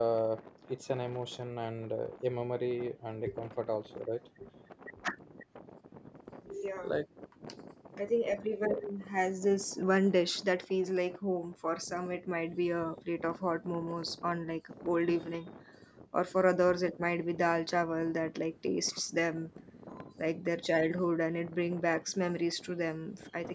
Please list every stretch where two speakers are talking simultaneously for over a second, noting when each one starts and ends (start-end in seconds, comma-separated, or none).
none